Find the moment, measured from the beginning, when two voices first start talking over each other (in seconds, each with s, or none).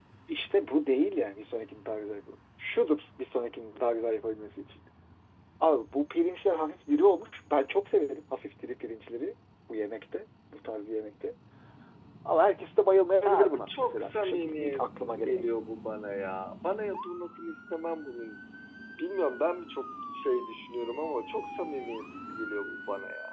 13.2 s